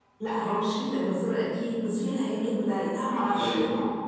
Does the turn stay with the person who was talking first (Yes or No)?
Yes